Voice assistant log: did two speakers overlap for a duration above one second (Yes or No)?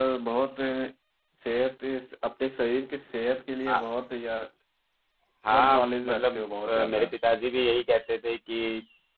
Yes